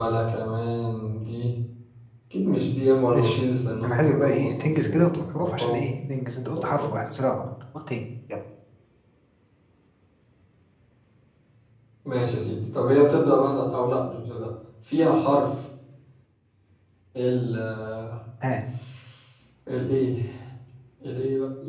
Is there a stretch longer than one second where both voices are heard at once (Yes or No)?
Yes